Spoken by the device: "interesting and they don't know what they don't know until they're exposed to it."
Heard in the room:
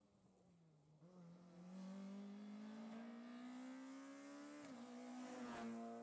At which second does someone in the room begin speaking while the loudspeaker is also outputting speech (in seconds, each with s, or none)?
none